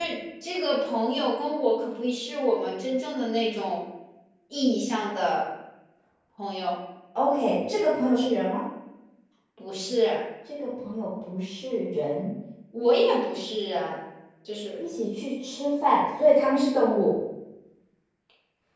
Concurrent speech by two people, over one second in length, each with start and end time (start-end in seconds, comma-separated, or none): none